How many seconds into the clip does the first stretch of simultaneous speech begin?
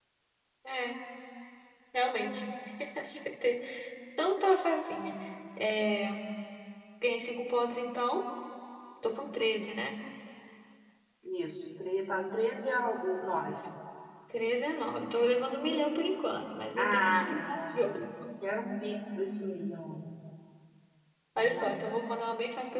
16.8 s

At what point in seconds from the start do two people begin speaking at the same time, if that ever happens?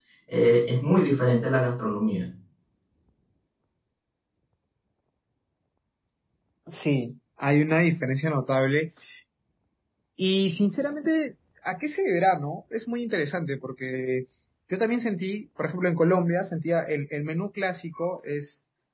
none

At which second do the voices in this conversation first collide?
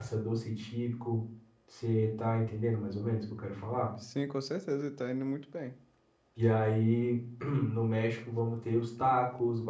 none

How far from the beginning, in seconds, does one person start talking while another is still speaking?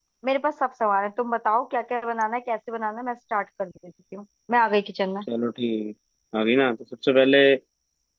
none

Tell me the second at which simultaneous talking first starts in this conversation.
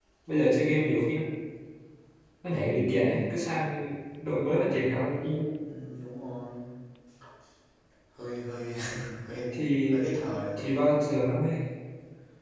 none

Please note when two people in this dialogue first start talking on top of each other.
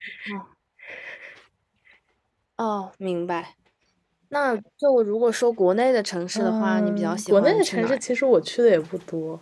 6.3 s

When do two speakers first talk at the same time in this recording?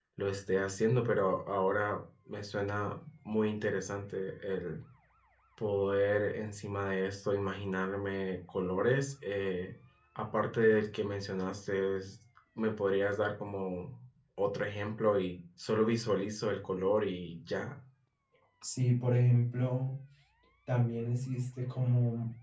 none

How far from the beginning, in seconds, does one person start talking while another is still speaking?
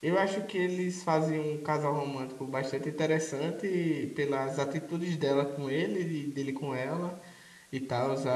none

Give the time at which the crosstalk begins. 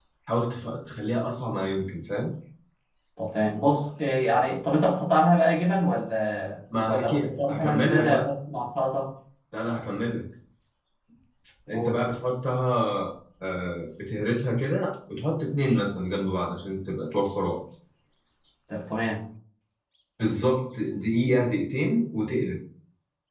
6.9 s

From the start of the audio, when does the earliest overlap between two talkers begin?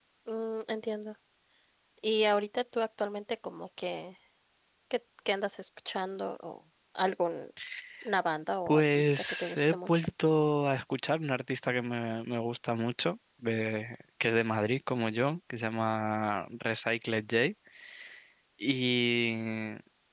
8.7 s

